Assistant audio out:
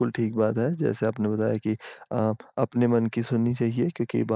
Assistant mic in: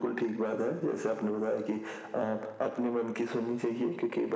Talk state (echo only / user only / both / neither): echo only